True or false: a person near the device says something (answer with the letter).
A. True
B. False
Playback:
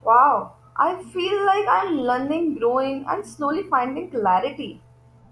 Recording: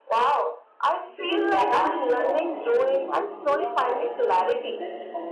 A